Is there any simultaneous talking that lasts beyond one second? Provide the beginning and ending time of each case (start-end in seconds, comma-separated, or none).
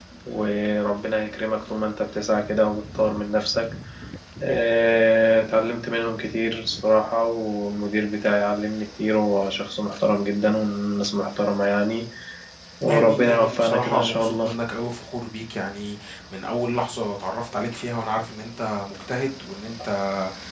12.9-14.5